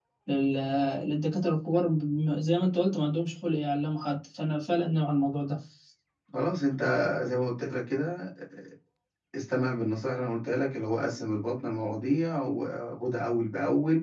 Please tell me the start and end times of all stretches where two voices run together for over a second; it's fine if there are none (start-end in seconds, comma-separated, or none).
none